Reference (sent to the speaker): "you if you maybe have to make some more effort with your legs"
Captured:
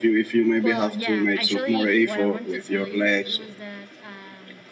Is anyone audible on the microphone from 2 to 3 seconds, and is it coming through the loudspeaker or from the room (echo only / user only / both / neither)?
both